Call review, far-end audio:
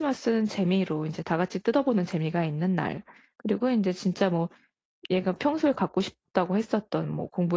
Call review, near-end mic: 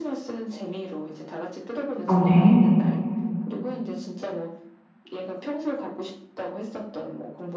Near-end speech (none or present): present